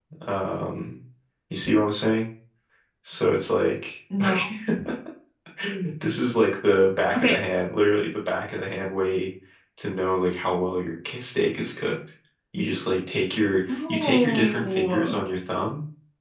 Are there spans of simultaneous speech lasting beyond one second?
Yes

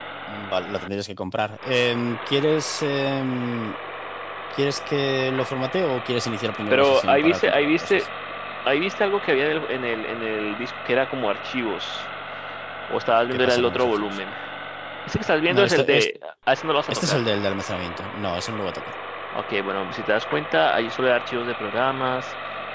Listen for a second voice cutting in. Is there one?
Yes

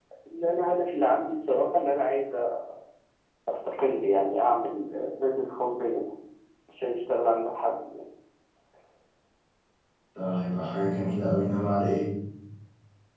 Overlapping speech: No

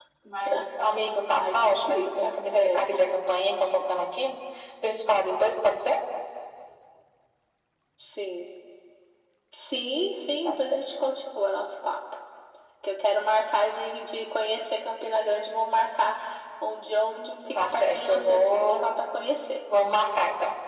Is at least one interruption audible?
Yes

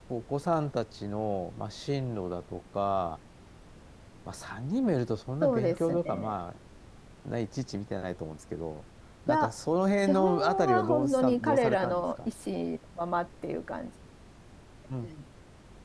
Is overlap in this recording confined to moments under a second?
No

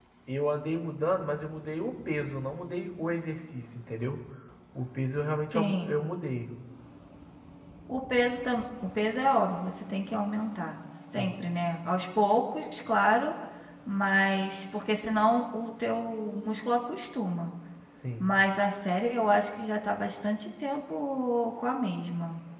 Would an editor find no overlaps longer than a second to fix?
Yes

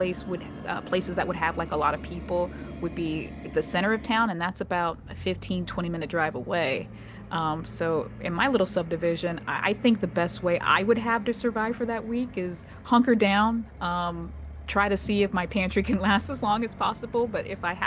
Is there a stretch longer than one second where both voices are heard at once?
No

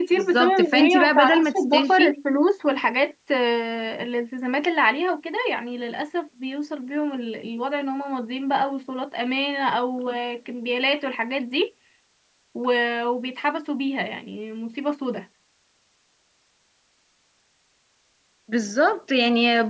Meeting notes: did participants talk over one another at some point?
Yes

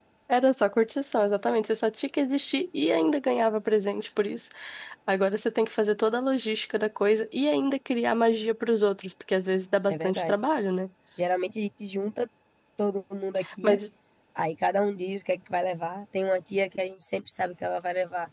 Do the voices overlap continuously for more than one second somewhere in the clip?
No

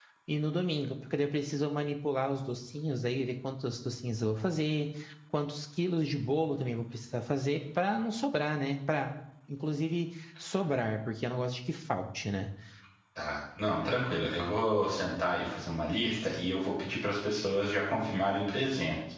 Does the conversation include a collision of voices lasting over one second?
No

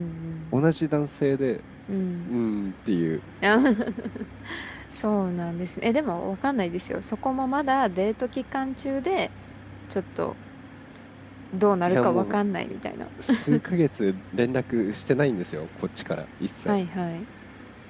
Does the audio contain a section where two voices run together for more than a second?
No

